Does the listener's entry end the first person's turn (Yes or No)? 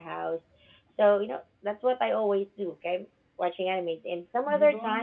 Yes